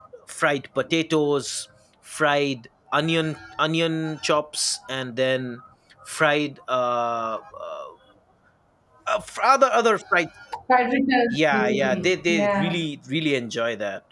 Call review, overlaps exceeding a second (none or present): present